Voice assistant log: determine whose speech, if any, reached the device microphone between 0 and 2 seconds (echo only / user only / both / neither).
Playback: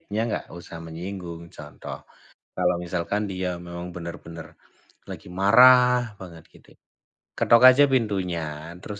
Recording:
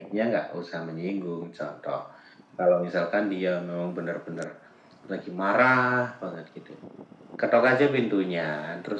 echo only